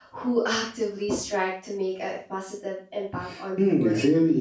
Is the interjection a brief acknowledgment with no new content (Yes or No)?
No